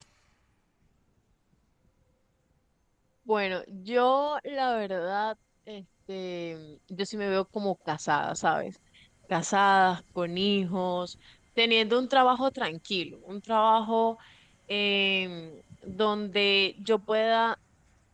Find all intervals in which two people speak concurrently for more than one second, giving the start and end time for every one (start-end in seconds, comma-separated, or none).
none